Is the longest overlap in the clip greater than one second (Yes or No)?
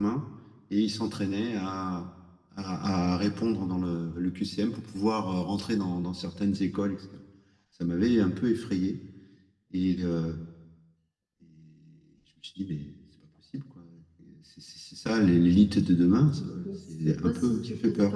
Yes